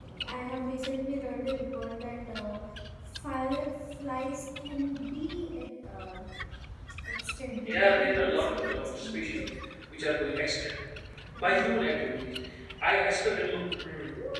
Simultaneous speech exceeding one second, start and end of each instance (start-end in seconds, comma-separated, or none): 7.6-9.4